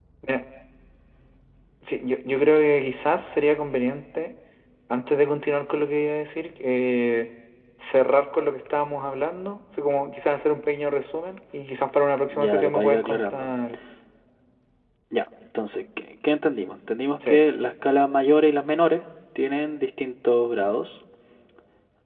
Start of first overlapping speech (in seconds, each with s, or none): 12.3 s